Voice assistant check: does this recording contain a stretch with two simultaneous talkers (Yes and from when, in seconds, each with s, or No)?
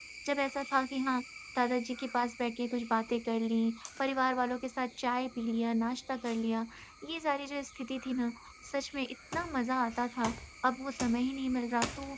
No